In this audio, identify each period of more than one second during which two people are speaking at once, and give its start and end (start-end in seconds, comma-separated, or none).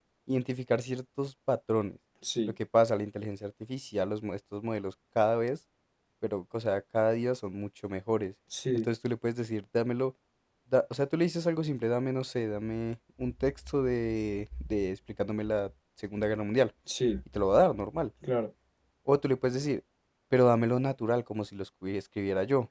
none